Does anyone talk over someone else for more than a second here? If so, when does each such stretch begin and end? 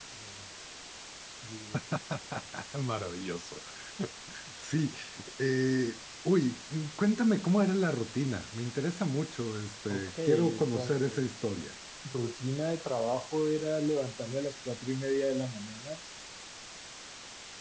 9.9-11.6

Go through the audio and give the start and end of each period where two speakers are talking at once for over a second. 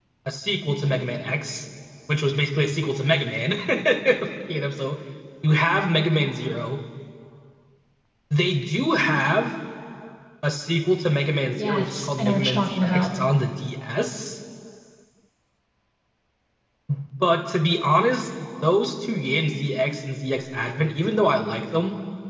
11.6-13.1

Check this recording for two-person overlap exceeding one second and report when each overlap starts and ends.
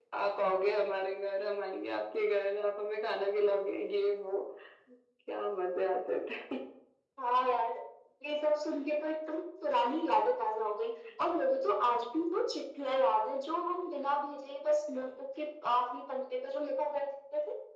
none

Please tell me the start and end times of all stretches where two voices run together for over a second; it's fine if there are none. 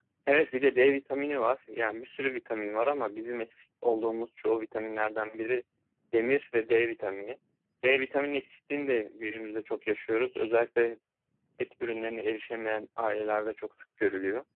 none

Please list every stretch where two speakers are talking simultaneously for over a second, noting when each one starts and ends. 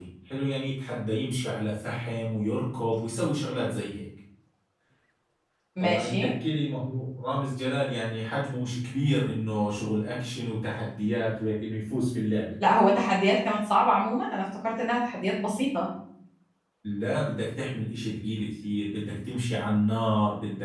none

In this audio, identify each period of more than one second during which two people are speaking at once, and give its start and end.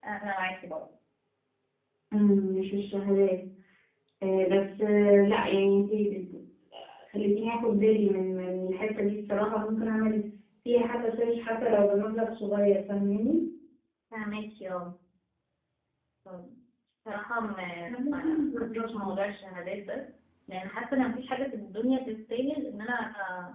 17.9-19.2

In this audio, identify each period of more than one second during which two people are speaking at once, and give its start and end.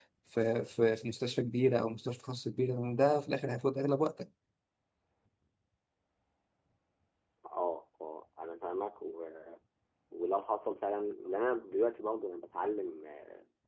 none

